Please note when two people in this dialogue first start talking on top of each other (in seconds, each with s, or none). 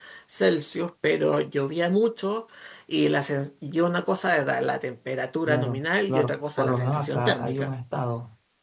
5.5 s